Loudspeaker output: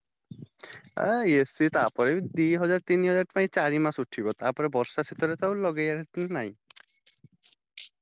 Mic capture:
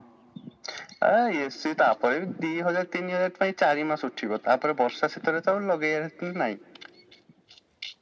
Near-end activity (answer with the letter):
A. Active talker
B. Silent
B